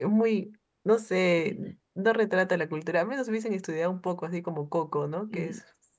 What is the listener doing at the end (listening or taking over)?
taking over